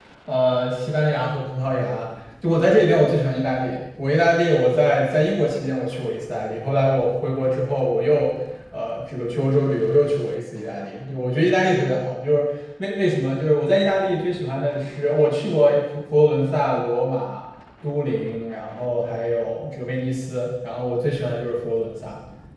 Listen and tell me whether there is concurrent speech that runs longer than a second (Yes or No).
No